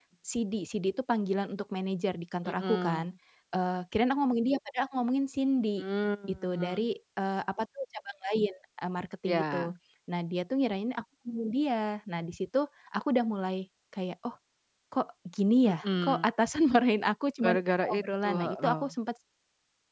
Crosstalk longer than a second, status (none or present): present